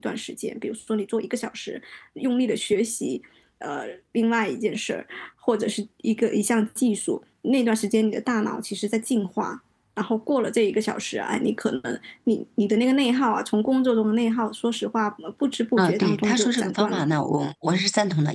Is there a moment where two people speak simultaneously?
Yes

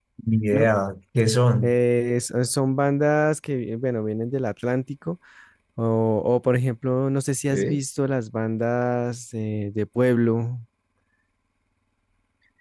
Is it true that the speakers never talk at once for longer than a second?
Yes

